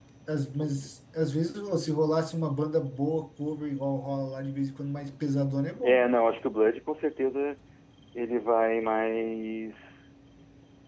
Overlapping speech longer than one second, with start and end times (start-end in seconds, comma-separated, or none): none